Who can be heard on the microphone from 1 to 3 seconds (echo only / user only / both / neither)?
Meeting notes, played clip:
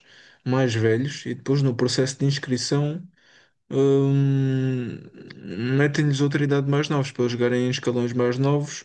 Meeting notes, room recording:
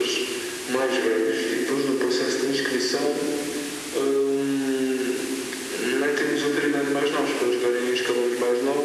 echo only